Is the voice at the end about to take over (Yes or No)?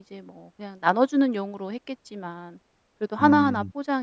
No